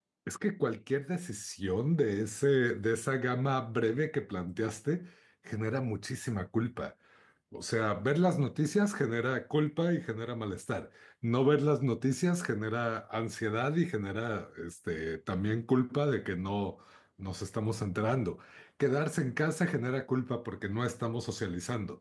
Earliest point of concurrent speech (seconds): none

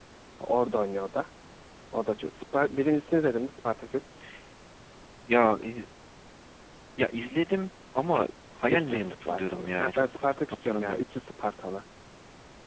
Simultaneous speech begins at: 8.7 s

